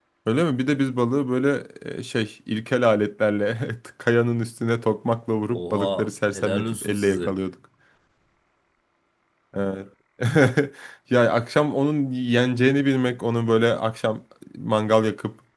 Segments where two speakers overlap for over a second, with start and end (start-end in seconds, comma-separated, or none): 5.5-7.4